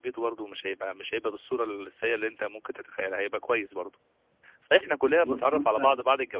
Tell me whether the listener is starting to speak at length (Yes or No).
No